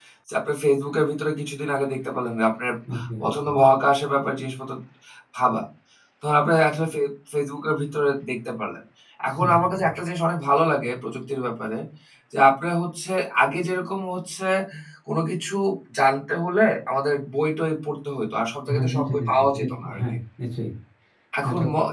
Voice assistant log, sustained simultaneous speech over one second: present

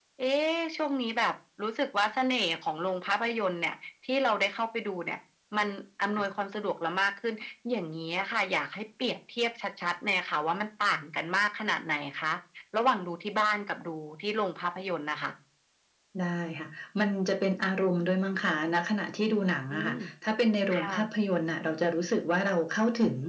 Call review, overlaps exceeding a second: none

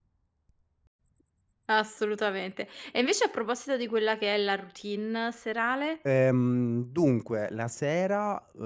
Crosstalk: none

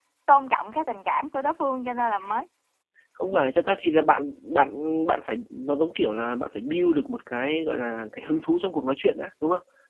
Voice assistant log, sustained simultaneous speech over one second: none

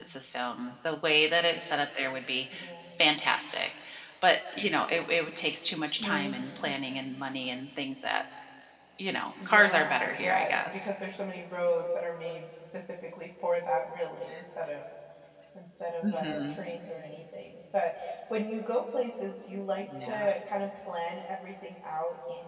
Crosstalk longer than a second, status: present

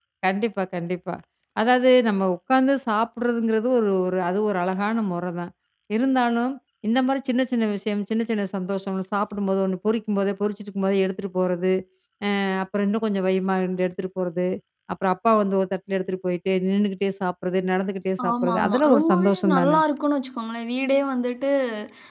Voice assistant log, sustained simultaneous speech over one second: present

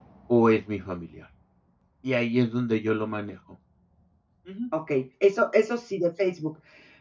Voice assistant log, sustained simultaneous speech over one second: none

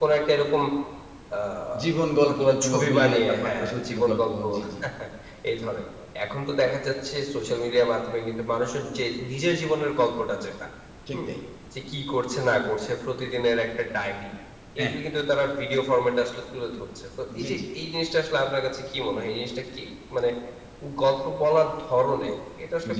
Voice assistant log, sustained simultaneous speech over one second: present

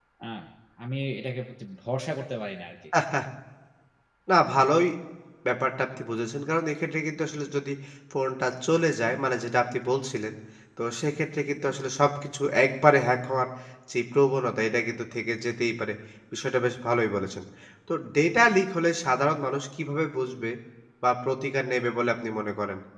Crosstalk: none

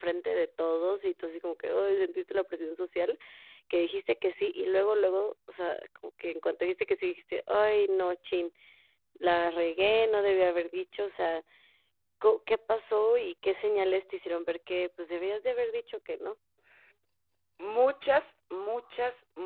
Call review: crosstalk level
none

